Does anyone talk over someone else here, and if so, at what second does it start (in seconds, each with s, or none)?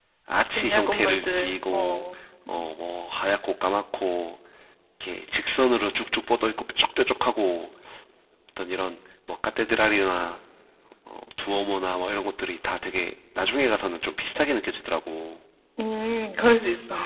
0.6 s